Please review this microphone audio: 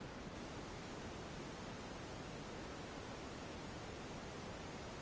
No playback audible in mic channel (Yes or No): Yes